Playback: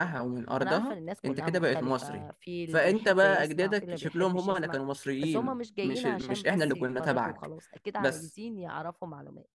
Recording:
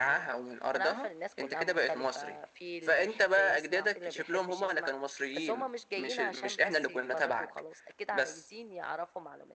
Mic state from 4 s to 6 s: echo only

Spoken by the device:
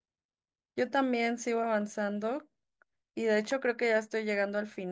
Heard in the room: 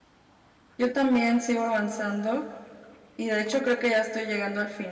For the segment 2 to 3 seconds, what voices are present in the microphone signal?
echo only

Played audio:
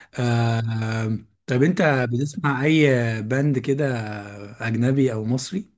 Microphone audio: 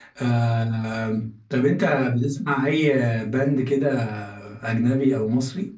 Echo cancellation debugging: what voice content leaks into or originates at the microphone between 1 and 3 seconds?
echo only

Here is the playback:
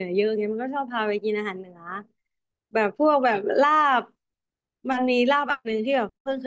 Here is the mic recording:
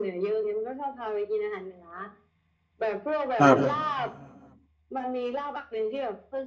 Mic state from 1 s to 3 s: echo only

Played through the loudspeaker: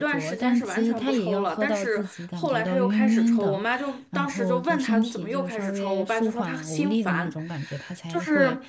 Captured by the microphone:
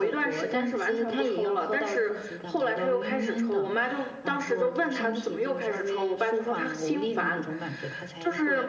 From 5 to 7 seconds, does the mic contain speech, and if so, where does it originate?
echo only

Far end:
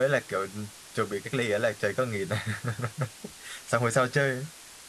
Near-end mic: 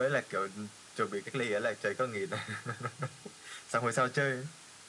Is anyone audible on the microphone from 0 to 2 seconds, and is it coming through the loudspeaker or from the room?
echo only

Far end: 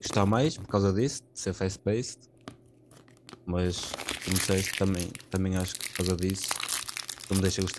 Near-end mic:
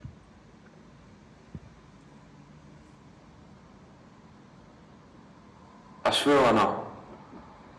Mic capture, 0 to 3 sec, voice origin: neither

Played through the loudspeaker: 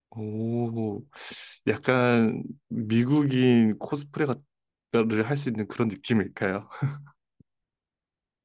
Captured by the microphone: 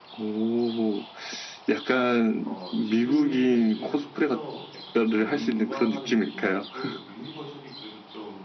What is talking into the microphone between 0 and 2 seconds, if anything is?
echo only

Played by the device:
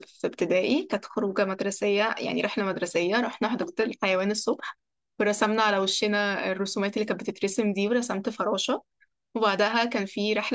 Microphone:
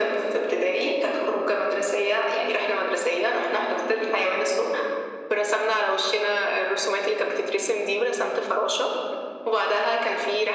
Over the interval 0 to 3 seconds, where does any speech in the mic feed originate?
echo only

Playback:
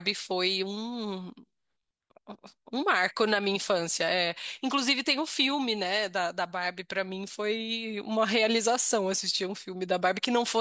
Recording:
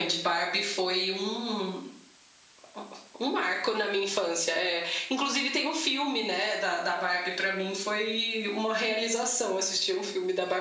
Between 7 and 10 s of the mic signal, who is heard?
echo only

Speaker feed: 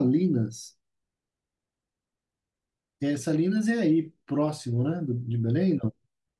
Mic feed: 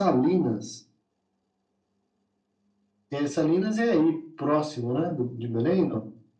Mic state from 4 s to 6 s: echo only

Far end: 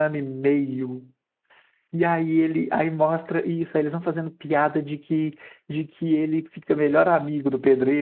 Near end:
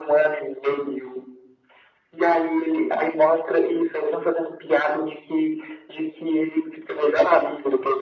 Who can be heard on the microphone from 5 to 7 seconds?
echo only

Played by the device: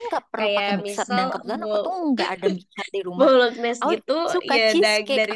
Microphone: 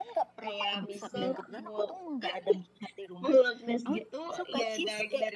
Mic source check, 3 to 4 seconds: echo only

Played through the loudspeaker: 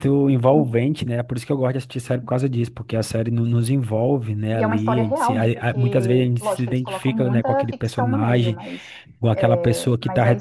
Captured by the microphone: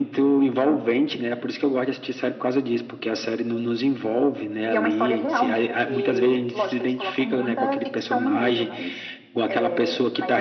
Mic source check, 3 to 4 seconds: echo only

